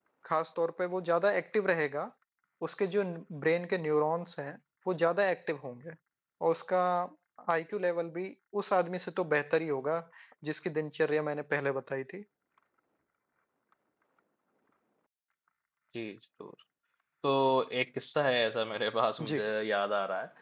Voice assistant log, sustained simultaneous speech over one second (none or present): none